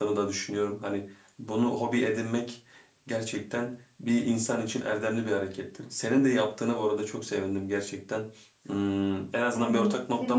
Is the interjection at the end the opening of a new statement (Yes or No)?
Yes